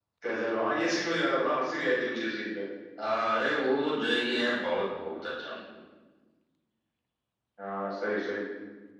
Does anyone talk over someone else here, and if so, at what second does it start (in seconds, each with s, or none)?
none